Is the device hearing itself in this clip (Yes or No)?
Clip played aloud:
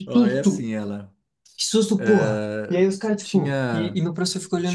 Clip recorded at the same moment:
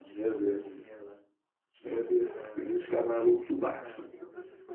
Yes